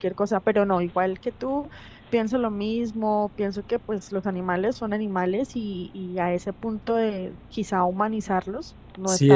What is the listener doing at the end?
taking over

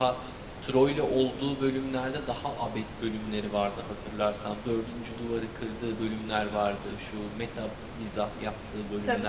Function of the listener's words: taking over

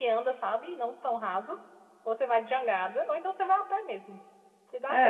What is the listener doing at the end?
taking over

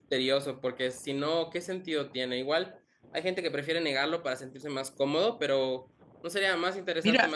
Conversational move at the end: taking over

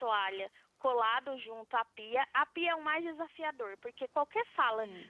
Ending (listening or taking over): listening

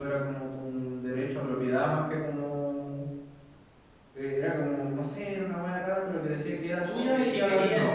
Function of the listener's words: taking over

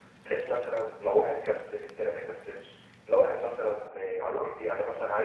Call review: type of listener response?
listening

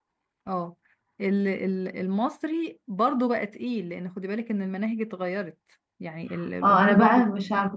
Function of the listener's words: taking over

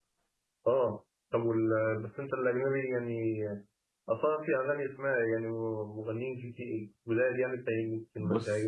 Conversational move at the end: taking over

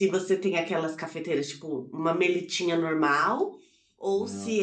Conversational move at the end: listening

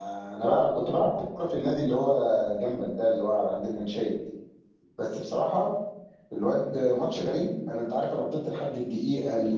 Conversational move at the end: taking over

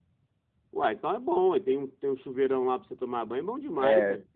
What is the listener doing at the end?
taking over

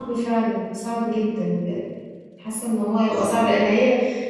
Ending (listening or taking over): listening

